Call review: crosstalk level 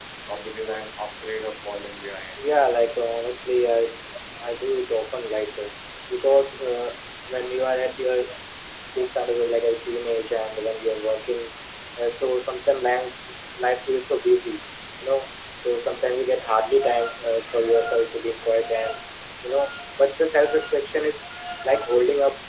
none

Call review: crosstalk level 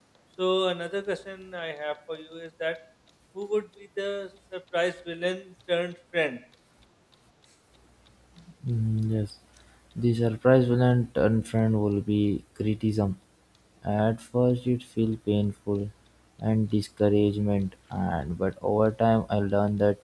none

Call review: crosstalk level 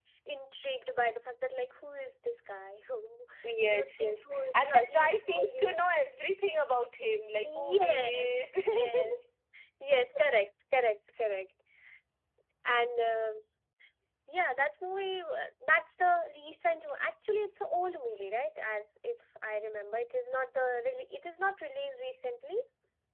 present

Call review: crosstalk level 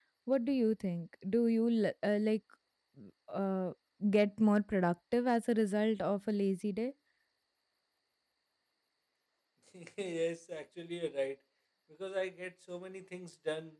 none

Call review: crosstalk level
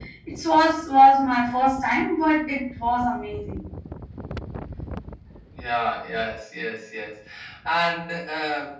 none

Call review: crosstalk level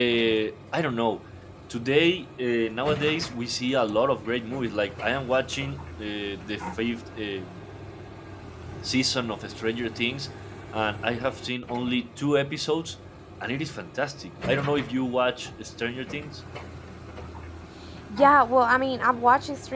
none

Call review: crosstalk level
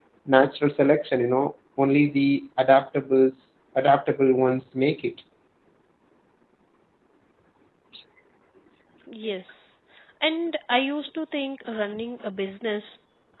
none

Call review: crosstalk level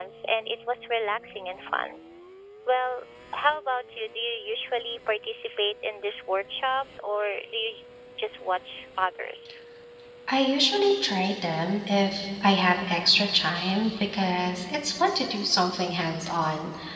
none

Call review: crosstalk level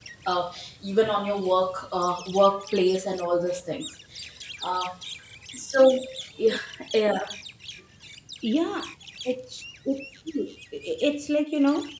none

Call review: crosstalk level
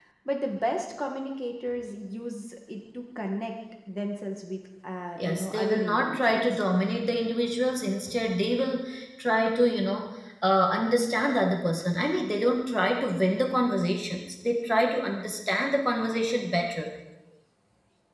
present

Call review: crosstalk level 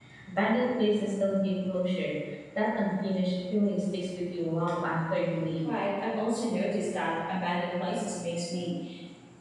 none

